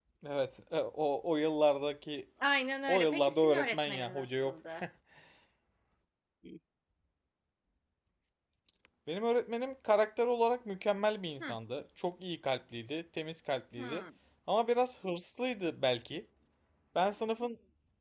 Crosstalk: present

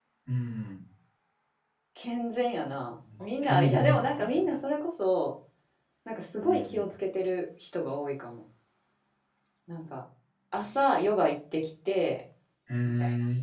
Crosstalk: present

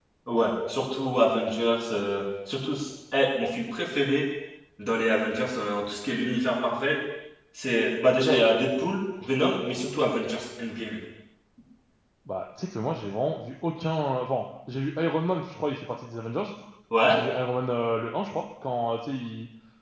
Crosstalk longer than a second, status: none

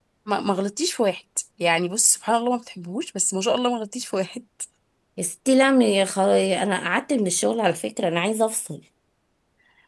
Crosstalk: none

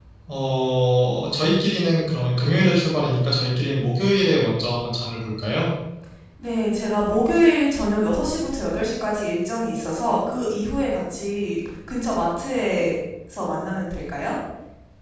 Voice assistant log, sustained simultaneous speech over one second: none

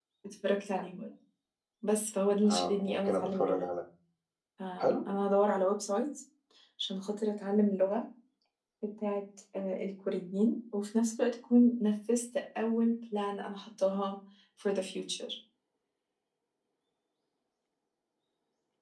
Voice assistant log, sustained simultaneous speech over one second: present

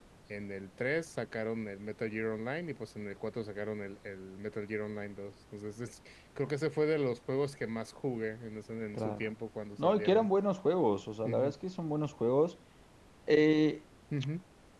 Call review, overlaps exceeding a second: none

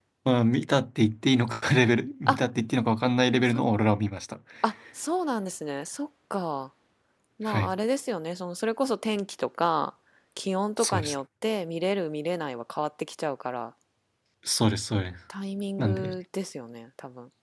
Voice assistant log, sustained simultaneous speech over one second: none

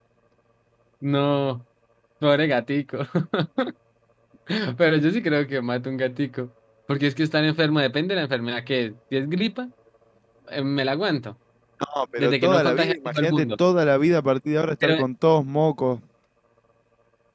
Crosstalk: present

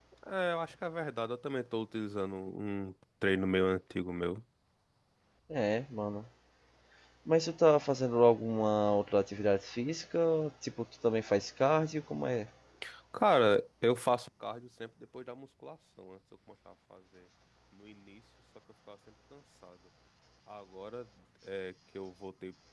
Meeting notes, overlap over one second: none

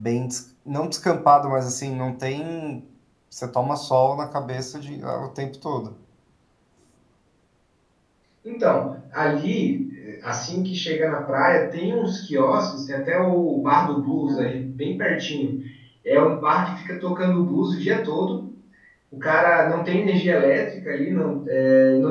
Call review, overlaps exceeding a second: none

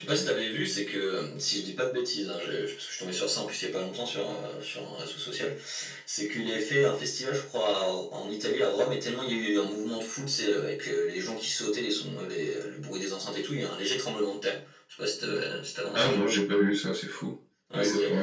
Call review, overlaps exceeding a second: none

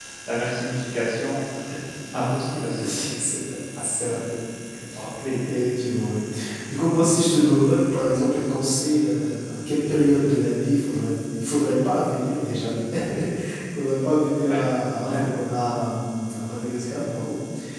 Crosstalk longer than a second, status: none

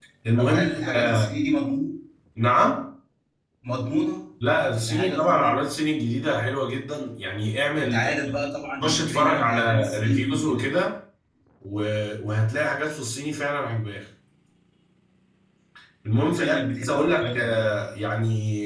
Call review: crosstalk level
present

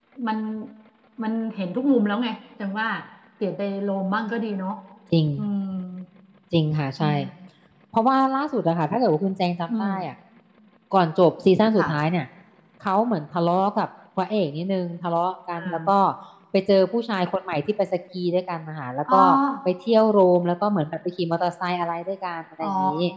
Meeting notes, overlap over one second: none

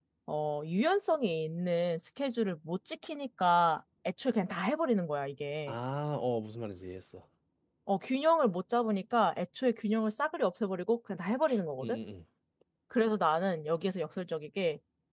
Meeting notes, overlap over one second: none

